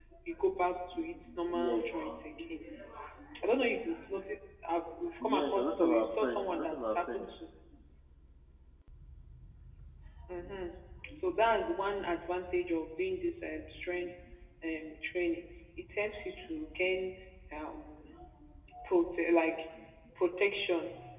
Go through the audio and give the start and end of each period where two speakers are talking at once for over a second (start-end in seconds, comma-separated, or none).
5.2-7.2